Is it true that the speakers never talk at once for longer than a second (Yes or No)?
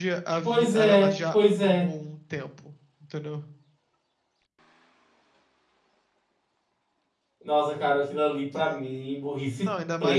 No